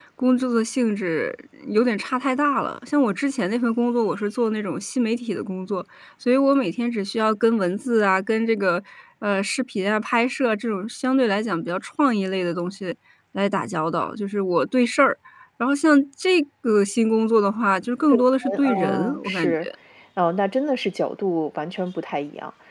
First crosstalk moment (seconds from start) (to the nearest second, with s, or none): 18 s